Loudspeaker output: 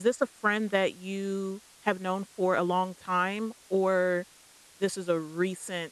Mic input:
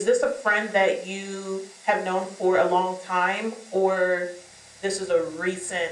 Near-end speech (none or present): none